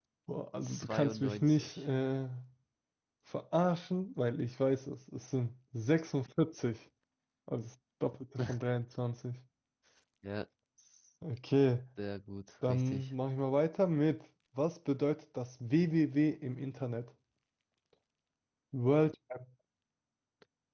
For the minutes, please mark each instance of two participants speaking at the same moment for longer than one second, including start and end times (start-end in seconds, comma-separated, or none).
0.6-1.9